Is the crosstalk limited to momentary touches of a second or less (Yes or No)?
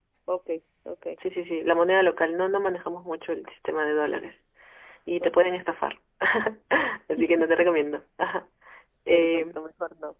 Yes